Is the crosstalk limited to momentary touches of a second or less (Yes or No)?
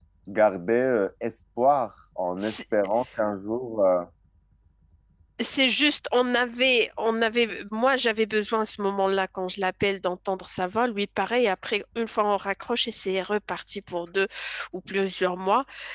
Yes